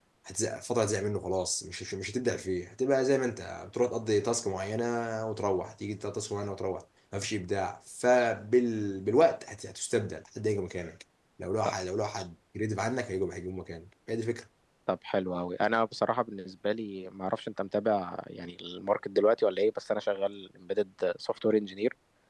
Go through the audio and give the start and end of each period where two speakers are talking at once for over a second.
none

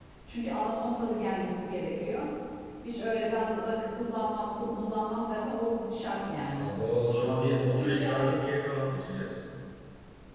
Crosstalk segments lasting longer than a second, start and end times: none

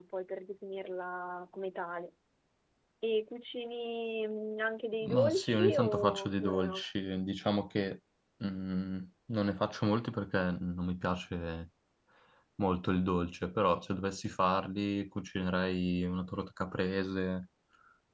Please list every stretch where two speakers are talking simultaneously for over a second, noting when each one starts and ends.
5.0-6.8

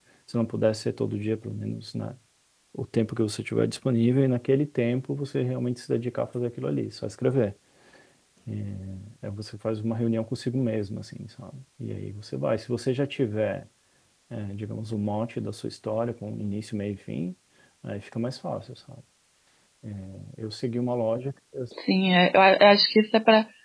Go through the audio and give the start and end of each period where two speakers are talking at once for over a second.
none

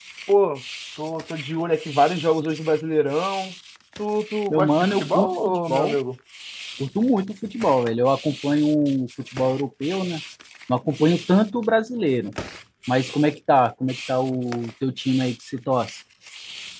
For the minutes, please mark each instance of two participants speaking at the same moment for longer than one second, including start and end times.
4.5-6.0

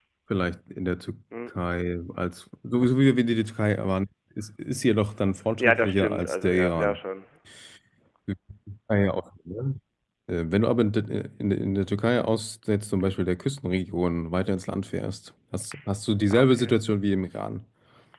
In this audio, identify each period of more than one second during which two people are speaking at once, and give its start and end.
5.6-7.0

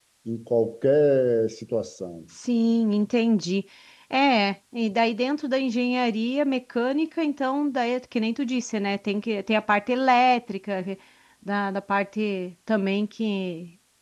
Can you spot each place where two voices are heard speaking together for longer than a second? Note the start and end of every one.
none

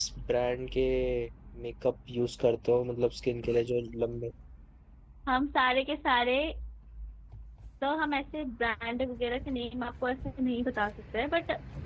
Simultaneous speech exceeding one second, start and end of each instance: none

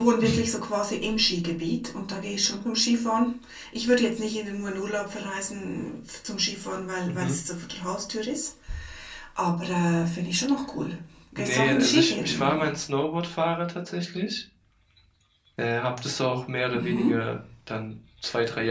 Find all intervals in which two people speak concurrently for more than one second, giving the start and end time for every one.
11.3-12.7

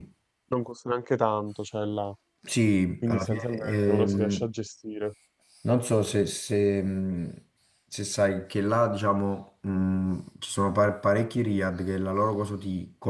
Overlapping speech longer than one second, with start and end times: 3.0-4.5

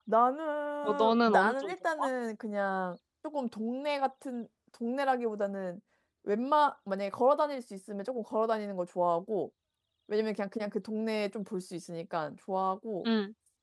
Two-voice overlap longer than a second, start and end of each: 0.8-2.1

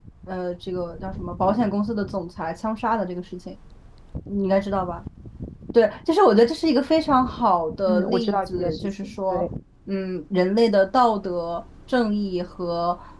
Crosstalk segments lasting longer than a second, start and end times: 7.9-9.5

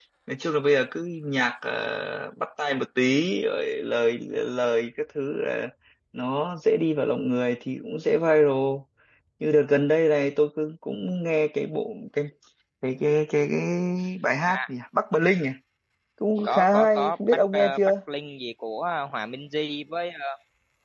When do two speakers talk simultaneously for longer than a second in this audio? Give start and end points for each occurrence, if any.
16.4-17.8

